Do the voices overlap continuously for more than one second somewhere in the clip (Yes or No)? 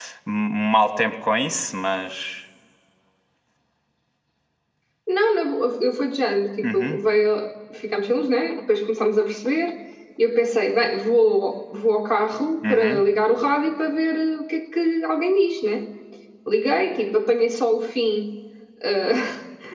No